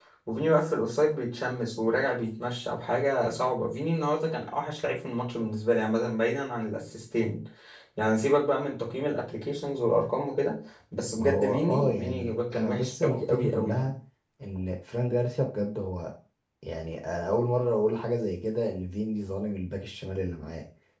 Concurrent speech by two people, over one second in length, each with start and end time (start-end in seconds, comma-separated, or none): 11.2-13.9